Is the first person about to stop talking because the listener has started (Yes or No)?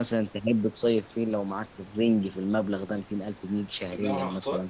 Yes